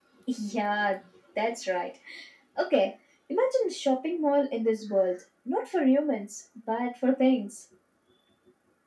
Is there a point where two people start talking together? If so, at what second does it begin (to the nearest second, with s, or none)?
none